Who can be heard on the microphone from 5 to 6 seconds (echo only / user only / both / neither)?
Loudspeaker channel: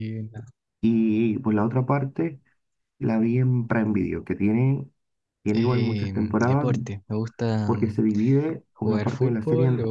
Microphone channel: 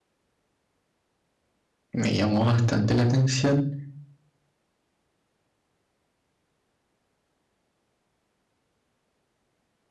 neither